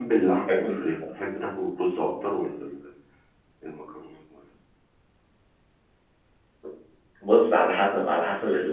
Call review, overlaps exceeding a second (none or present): none